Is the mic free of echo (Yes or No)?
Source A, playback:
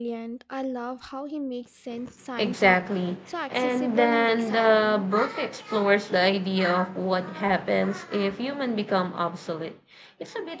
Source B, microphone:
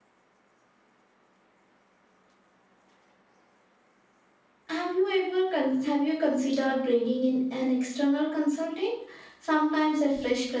Yes